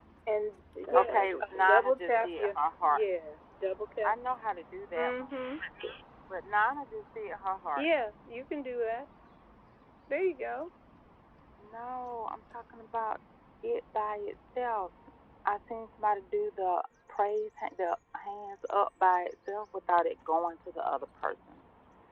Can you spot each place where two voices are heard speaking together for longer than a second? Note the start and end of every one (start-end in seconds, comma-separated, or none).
0.8-3.0